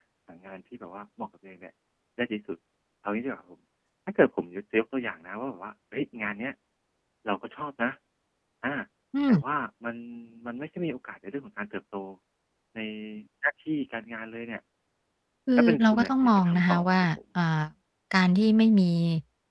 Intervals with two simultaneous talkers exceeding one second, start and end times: 15.6-17.1

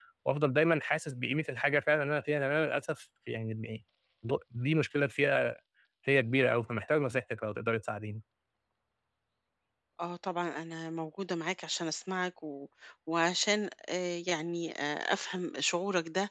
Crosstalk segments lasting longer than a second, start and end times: none

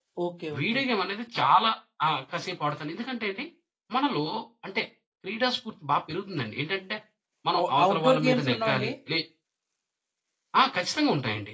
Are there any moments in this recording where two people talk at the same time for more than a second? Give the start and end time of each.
7.6-8.9

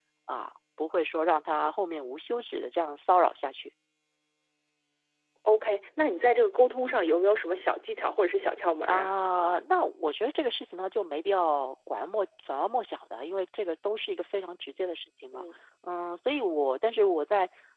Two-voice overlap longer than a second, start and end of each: none

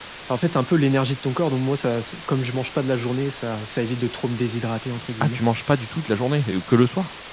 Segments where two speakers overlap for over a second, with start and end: none

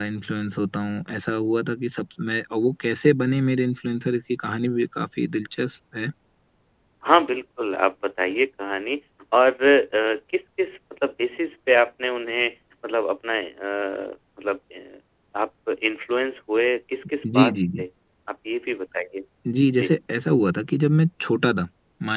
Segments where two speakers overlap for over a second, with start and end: none

